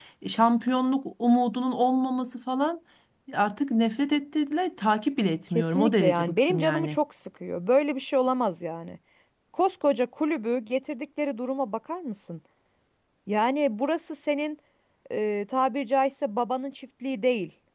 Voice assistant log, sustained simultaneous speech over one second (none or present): present